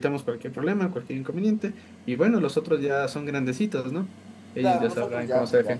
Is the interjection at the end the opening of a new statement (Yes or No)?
Yes